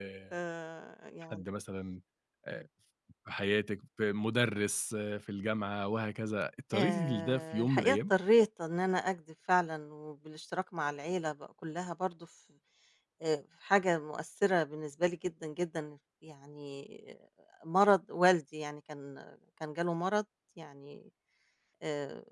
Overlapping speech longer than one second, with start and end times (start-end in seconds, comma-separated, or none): 6.8-8.0